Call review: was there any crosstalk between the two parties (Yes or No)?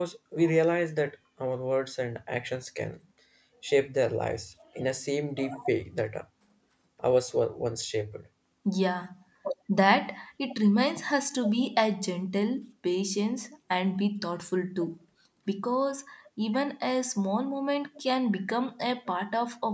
No